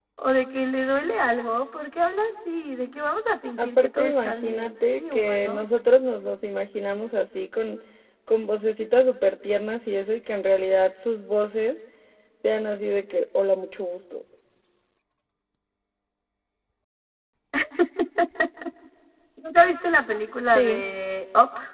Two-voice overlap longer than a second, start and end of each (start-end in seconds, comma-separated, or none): 3.6-5.6